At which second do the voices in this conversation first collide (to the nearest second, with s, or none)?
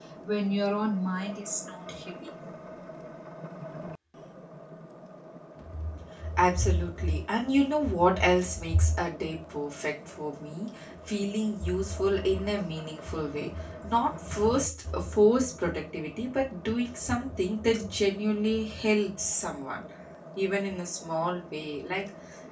none